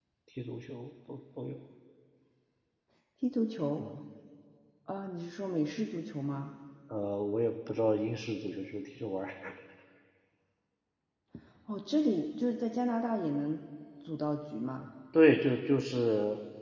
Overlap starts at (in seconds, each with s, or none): none